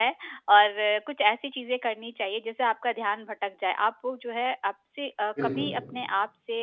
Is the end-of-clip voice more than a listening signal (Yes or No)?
No